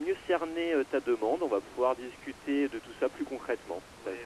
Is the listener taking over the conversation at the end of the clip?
Yes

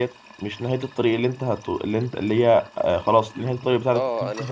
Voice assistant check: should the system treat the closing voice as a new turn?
Yes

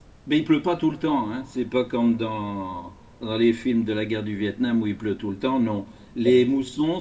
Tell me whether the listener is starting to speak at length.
No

